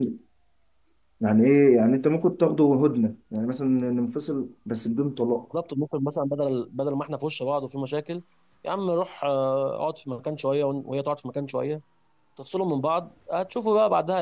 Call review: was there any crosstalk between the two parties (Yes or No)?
No